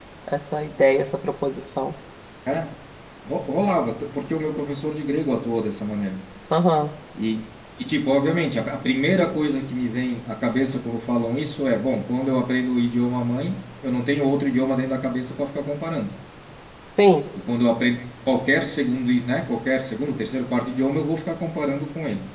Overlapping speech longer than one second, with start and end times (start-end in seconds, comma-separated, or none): none